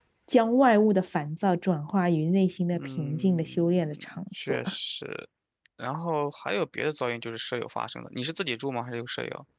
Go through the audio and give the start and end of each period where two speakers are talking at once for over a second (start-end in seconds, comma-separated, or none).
2.7-4.6